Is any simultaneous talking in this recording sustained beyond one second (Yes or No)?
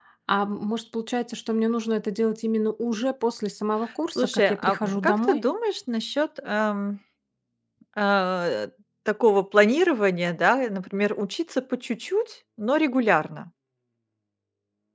Yes